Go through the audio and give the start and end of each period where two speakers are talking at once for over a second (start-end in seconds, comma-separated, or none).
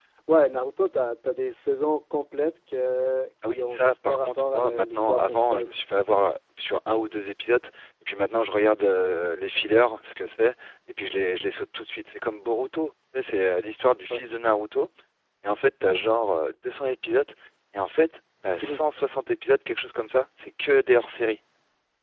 3.5-5.7